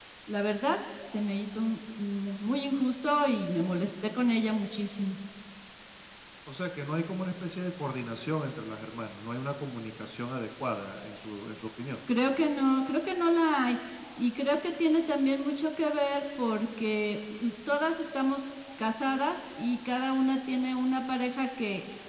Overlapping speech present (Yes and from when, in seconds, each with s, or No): No